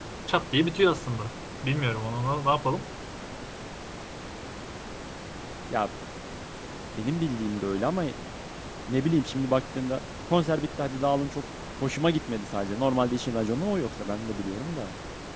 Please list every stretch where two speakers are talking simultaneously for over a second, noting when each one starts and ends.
none

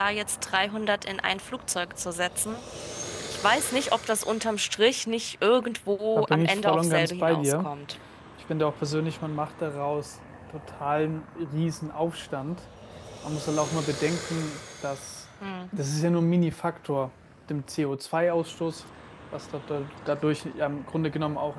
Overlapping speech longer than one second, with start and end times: 6.2-7.7

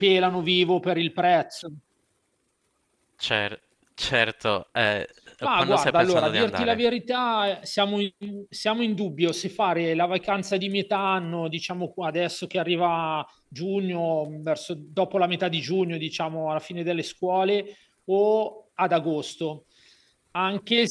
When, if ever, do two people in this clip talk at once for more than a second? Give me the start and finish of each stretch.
5.5-6.9

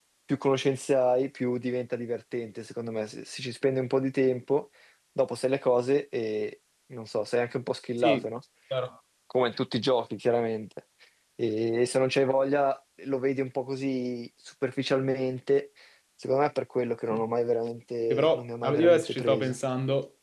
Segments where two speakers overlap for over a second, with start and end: 18.1-19.6

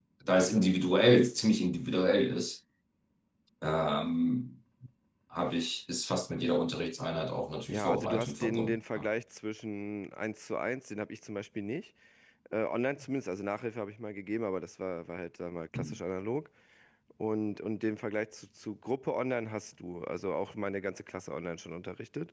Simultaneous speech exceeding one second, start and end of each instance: 7.7-9.1

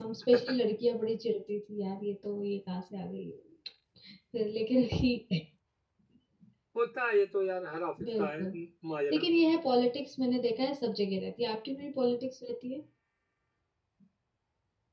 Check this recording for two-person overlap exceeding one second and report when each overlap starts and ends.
none

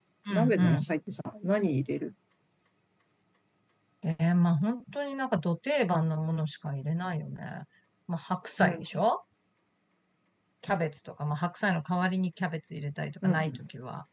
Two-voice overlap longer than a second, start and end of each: none

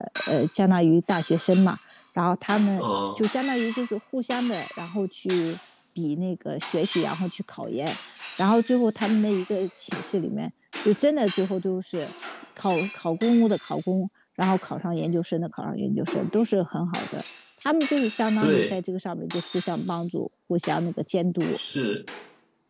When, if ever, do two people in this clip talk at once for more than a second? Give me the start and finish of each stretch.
none

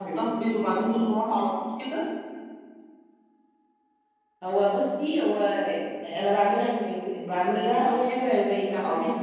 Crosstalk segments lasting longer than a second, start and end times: none

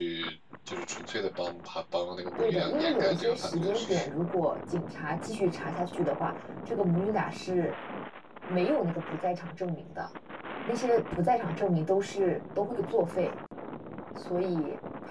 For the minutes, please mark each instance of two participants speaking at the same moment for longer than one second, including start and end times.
2.4-4.1

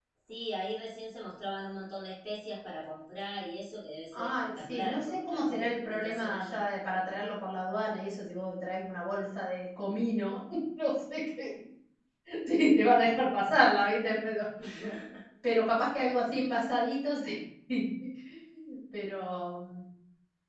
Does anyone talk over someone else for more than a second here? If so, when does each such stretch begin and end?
4.1-6.6

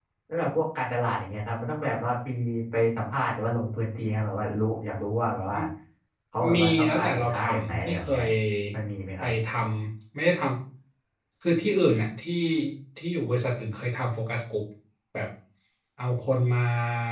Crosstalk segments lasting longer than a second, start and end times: 6.5-8.2

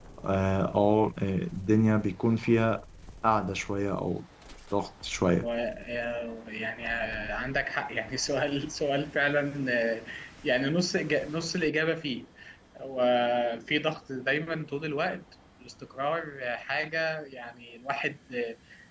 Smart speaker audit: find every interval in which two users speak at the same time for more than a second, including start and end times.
none

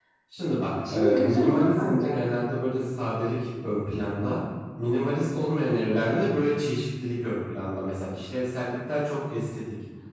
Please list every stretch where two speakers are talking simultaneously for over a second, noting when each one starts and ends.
0.9-2.3

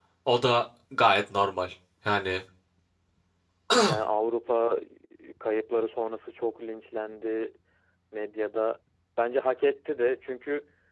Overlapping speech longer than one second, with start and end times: none

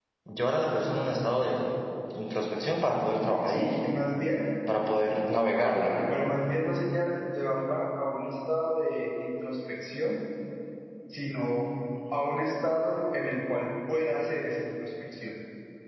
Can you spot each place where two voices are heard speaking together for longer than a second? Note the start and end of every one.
none

